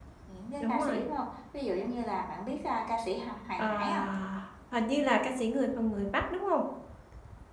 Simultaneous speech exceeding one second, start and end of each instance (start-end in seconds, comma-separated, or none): none